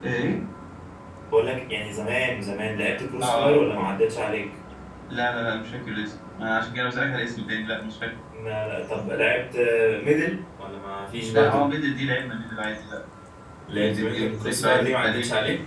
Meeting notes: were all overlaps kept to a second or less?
No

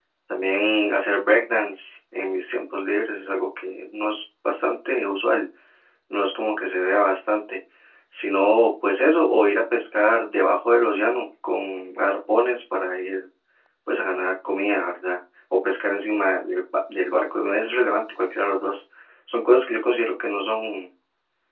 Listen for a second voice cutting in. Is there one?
No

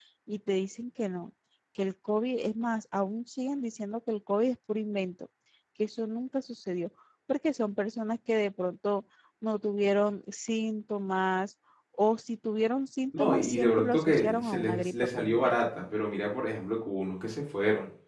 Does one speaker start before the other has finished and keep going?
Yes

